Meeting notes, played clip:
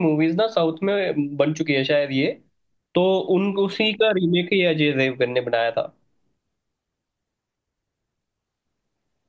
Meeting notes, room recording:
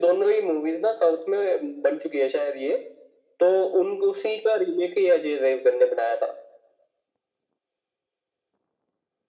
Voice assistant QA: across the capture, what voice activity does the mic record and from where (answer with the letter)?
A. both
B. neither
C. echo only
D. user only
C